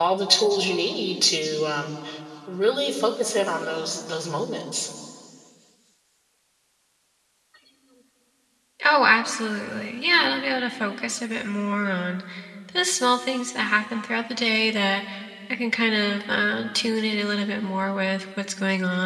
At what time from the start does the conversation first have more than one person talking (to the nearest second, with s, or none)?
none